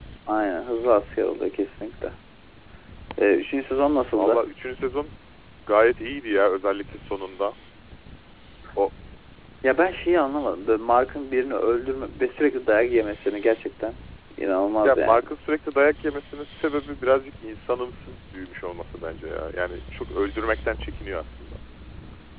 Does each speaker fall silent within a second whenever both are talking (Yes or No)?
Yes